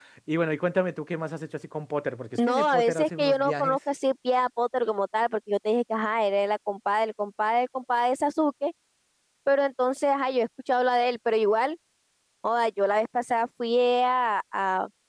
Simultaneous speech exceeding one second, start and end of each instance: 2.4-3.8

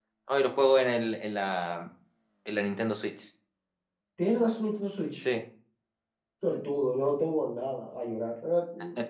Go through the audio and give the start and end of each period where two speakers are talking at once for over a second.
none

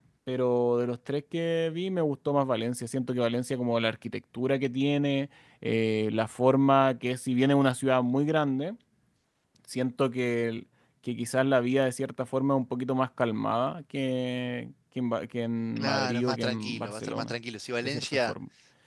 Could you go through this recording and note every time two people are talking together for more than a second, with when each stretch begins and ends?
15.8-17.3

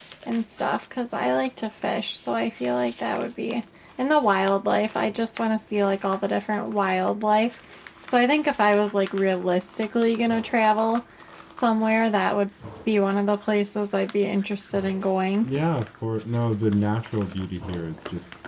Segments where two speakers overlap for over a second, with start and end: none

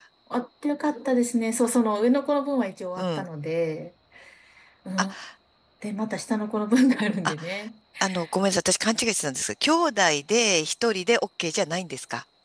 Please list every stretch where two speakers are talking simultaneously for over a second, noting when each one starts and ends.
none

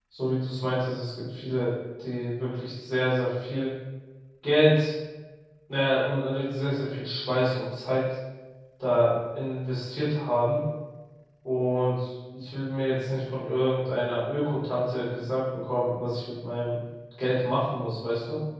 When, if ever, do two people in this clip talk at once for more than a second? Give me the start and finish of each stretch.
none

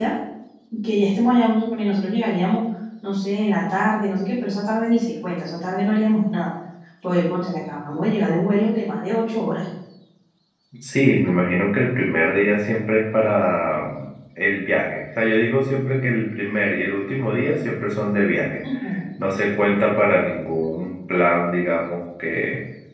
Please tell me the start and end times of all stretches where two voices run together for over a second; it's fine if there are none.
none

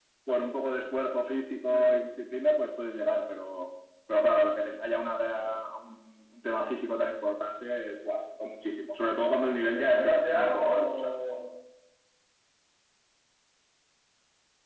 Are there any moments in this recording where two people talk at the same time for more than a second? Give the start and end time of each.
9.1-11.2

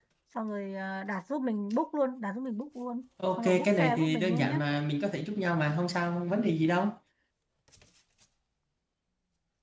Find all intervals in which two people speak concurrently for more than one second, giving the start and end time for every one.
3.4-4.6

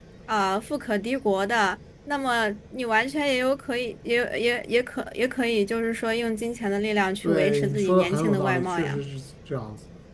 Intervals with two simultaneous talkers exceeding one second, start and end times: 7.2-9.0

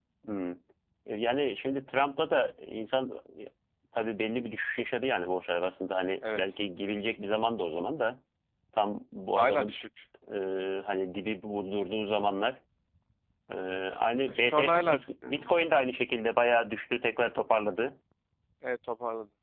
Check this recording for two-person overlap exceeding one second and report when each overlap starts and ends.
14.3-15.7

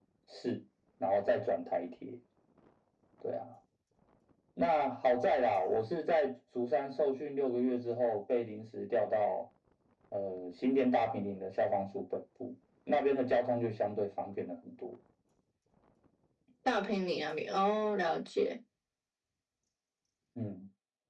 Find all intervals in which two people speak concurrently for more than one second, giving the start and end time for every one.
none

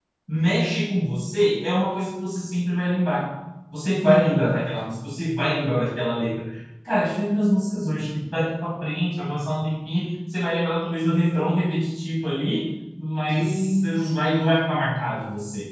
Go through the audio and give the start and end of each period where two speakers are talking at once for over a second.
13.3-14.6

